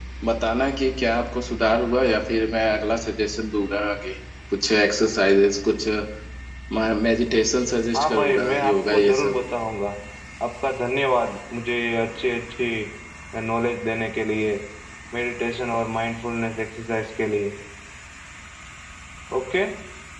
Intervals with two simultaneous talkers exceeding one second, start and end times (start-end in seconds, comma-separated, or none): 7.9-9.3